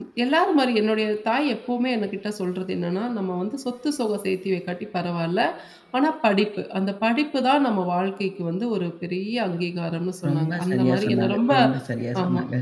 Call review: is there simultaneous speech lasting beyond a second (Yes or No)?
Yes